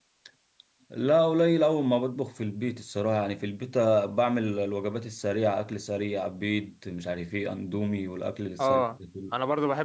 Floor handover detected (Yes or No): Yes